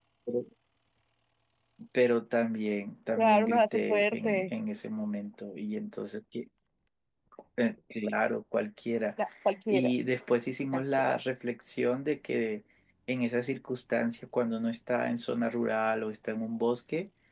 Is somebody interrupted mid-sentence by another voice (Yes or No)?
Yes